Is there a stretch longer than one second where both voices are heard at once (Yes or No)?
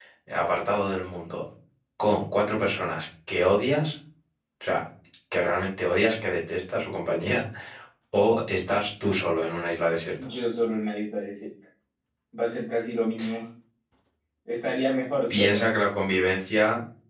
No